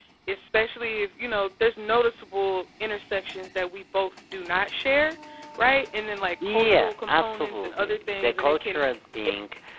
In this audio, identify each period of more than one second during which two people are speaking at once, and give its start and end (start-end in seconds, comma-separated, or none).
6.5-8.8